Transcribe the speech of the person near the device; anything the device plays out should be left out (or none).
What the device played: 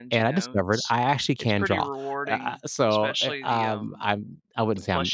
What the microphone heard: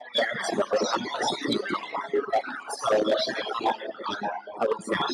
none